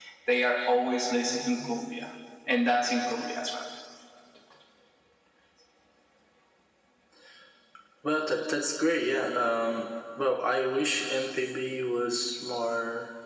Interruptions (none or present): none